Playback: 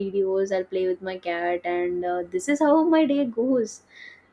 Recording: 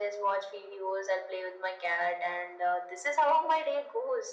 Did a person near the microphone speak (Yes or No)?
No